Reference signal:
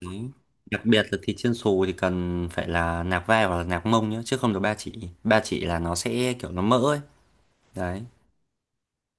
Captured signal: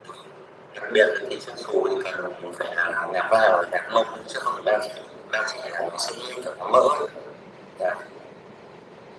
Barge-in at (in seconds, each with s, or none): none